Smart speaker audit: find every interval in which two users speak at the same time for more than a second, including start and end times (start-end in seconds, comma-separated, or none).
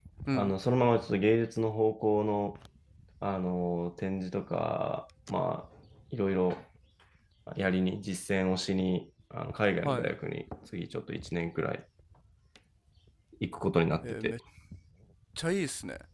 none